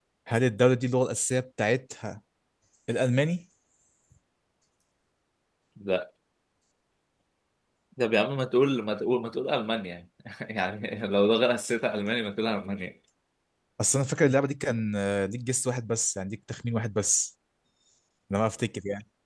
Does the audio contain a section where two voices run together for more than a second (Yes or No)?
No